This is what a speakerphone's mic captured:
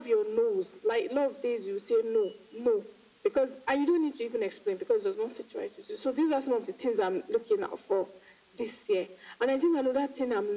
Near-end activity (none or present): none